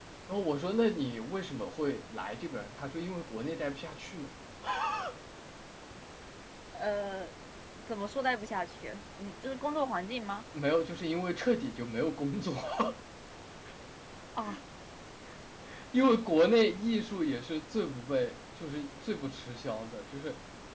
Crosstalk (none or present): none